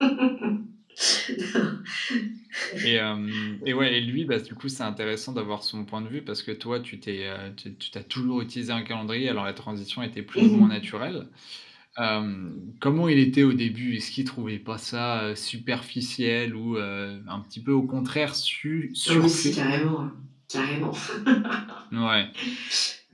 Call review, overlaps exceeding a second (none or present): none